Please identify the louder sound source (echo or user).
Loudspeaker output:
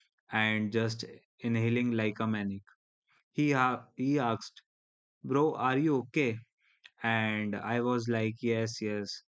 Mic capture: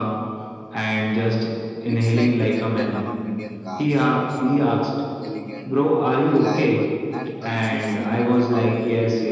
echo